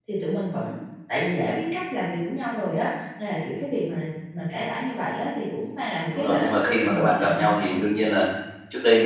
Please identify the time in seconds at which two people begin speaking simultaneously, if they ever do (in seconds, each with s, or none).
6.1 s